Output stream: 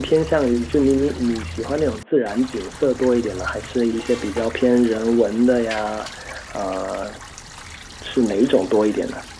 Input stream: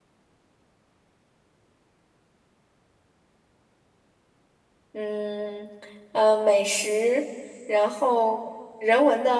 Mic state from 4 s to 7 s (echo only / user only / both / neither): user only